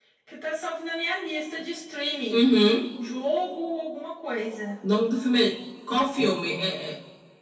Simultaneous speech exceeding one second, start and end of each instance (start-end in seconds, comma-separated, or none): none